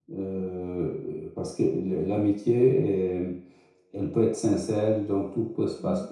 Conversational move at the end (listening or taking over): listening